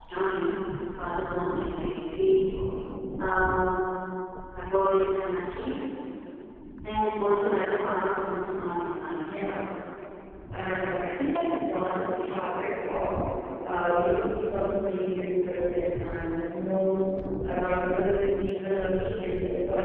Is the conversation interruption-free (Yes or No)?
Yes